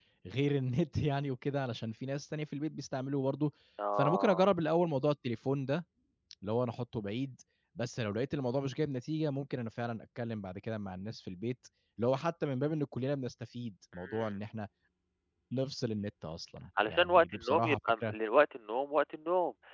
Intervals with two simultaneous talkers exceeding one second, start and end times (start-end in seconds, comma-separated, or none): 16.9-18.1